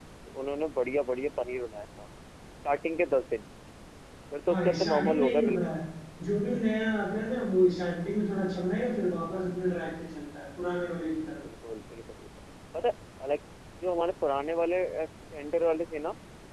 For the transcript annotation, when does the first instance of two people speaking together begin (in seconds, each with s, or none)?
4.5 s